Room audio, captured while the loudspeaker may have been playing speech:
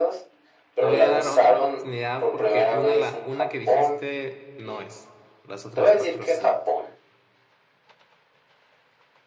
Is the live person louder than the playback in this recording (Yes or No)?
No